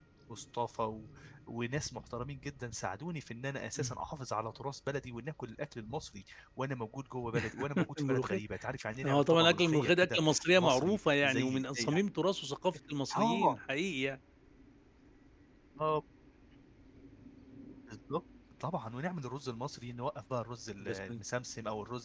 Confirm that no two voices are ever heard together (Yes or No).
No